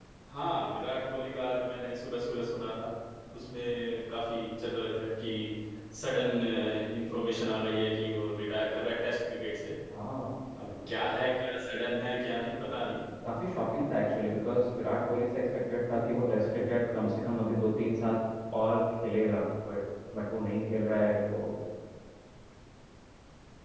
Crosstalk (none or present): none